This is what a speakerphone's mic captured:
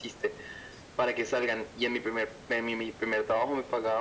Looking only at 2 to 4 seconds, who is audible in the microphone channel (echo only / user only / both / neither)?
echo only